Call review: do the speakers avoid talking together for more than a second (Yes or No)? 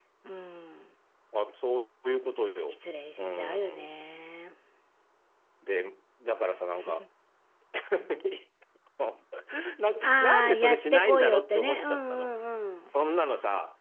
No